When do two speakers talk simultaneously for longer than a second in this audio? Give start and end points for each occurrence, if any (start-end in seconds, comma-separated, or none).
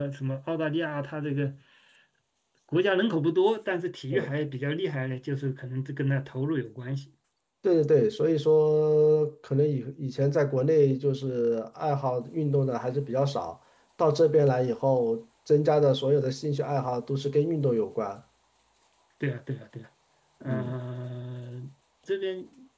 none